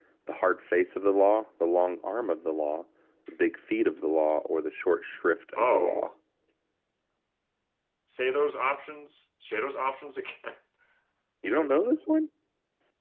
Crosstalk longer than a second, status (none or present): none